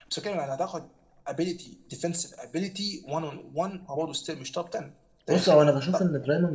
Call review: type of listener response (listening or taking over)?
taking over